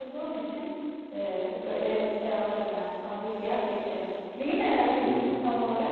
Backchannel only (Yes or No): No